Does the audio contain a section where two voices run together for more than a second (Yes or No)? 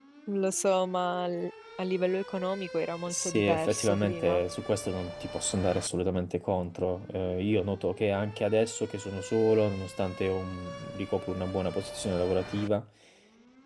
Yes